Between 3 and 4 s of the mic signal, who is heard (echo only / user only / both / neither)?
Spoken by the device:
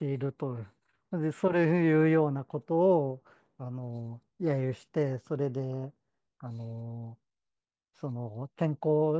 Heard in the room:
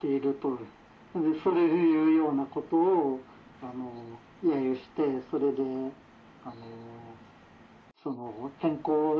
echo only